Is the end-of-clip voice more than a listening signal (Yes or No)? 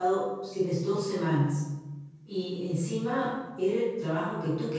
No